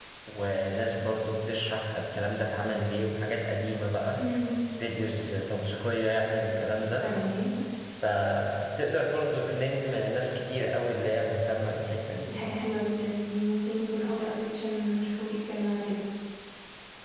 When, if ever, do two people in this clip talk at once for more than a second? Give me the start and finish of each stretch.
none

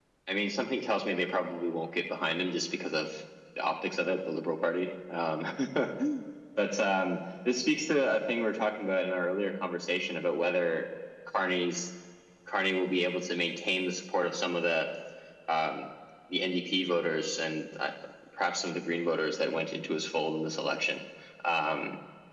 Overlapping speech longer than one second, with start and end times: none

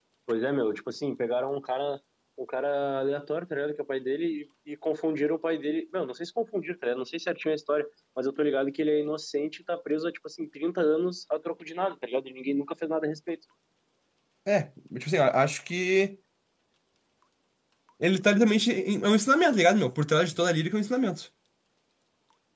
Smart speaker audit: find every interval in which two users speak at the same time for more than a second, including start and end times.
none

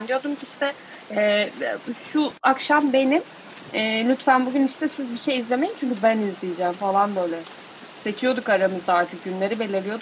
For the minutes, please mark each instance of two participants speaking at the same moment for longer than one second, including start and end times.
none

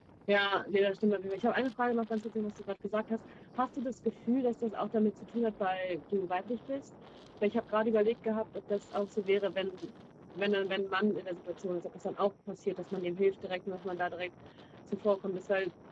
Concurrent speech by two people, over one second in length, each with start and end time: none

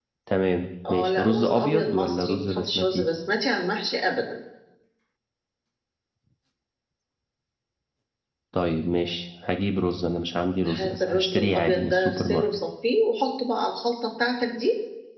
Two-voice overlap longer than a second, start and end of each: 0.9-3.1, 10.7-12.5

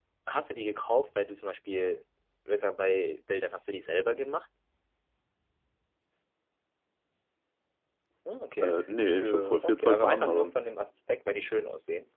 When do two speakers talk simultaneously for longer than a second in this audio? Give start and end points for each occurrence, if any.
9.2-10.6

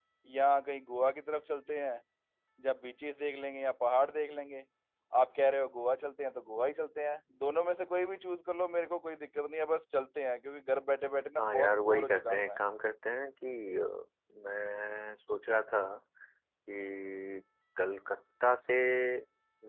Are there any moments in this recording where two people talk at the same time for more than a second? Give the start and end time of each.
11.4-12.6

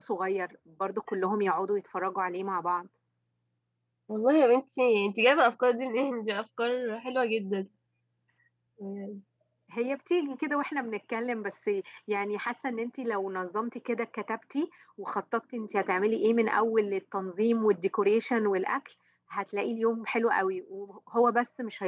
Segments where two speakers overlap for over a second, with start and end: none

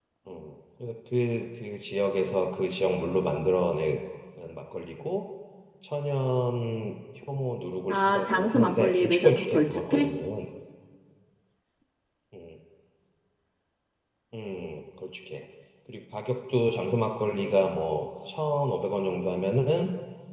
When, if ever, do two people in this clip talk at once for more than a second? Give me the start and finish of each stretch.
7.9-10.1

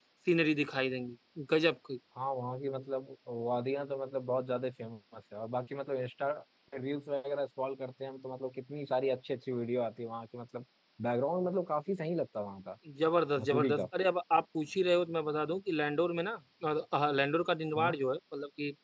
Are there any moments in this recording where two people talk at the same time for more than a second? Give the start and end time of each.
none

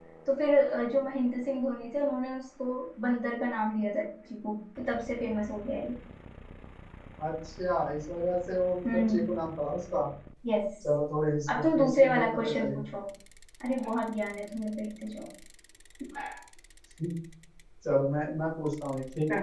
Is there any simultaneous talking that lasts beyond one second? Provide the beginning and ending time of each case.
11.5-12.8

